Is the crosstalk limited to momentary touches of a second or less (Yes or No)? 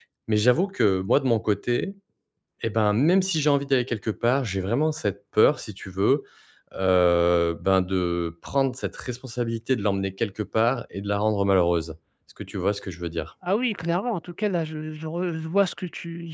Yes